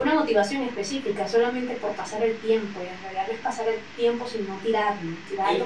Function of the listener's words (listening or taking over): taking over